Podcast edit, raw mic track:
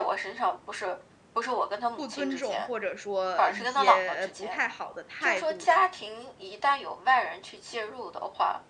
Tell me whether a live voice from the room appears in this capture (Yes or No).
Yes